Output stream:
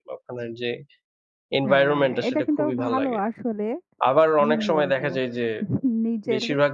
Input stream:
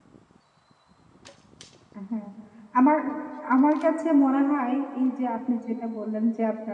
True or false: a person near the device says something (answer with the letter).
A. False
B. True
B